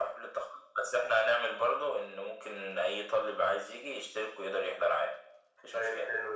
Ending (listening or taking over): taking over